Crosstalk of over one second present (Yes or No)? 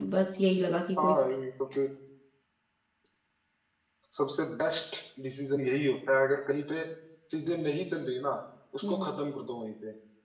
No